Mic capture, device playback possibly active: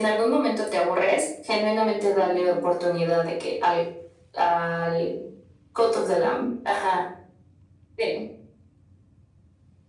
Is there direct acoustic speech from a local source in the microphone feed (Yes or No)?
Yes